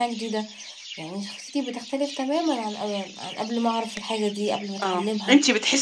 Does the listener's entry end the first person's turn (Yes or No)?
Yes